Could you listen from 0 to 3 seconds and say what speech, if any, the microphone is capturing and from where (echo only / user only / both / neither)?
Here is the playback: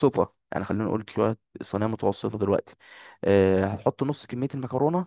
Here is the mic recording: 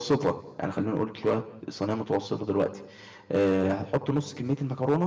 echo only